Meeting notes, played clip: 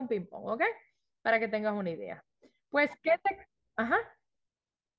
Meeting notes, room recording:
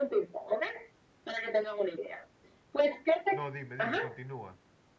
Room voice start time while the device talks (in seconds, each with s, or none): 3.3 s